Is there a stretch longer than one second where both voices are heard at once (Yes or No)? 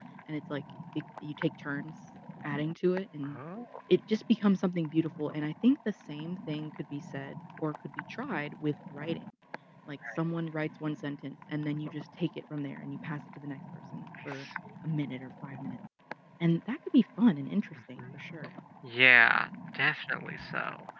No